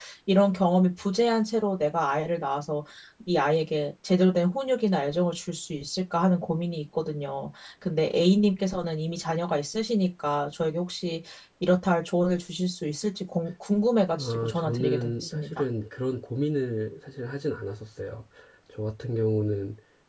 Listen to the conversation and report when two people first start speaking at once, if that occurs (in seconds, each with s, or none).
14.2 s